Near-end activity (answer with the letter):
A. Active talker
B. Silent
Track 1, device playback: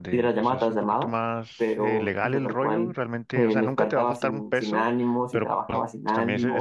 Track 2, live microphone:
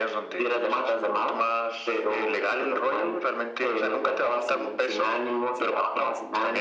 B